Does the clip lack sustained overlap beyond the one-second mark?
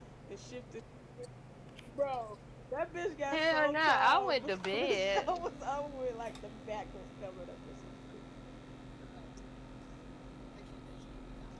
No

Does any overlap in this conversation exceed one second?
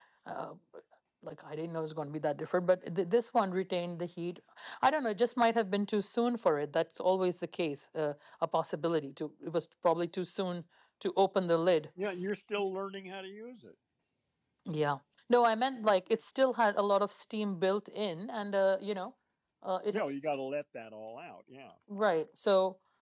No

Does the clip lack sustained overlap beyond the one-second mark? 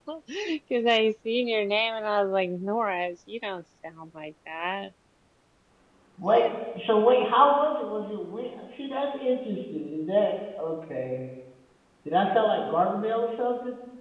Yes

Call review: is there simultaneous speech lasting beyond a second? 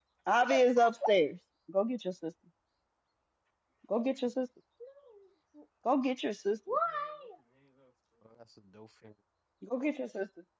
No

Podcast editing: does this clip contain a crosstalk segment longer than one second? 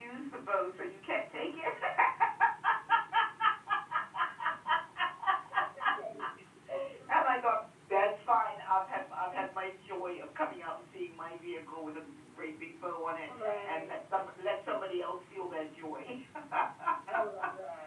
No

